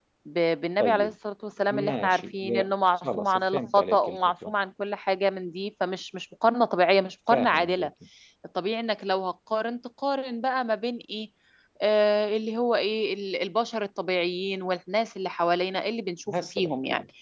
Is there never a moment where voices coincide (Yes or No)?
No